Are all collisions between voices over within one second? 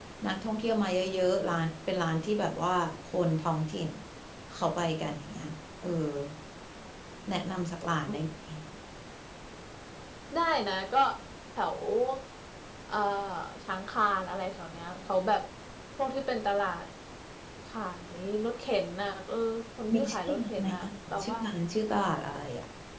No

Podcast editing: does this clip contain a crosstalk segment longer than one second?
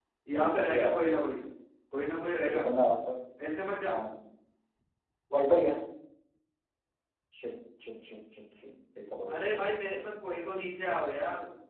Yes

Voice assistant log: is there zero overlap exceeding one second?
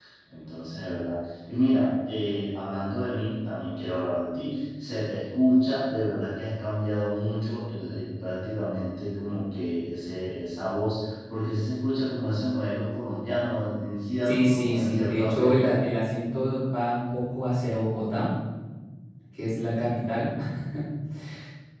No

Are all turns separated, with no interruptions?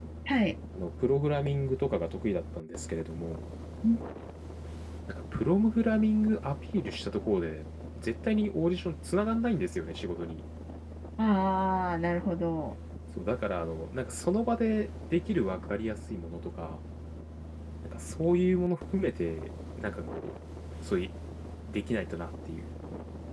Yes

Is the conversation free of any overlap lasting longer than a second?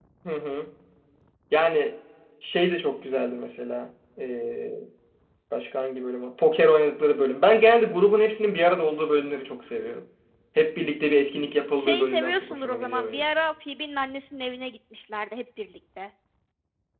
No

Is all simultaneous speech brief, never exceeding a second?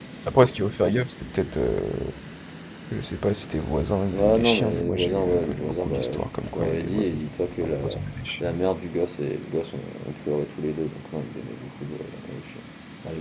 No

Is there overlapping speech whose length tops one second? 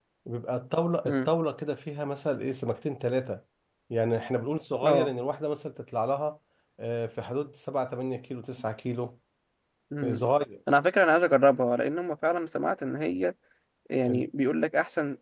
No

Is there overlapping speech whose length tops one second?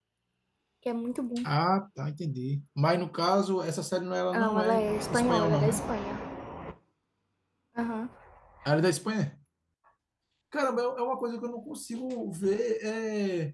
Yes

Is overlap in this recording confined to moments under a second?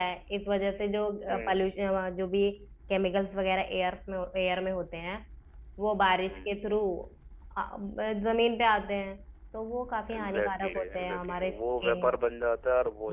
No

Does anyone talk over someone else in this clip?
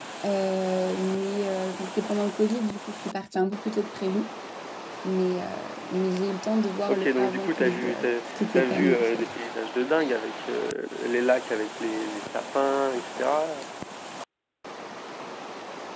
Yes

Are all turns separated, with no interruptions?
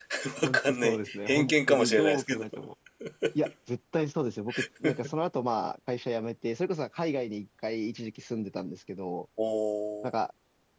No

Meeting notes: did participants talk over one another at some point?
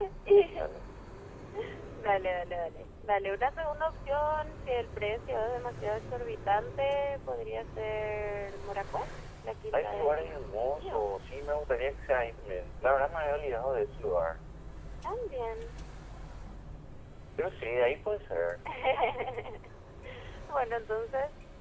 Yes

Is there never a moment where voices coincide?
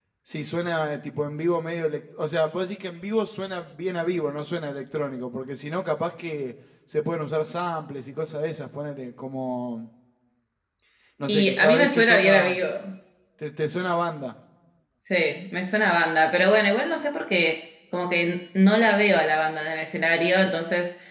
No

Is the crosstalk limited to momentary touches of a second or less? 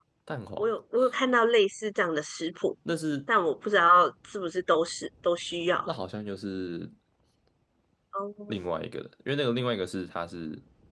Yes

